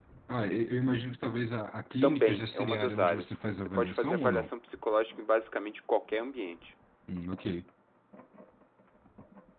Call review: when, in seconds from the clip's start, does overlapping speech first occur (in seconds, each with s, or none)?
2.0 s